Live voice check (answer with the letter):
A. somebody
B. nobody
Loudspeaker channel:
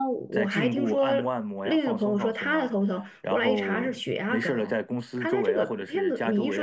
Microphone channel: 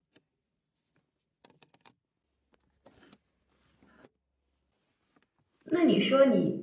A